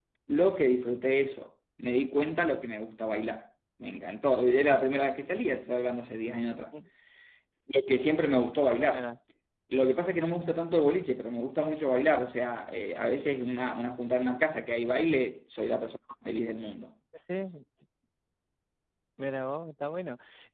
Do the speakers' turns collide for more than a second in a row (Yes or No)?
No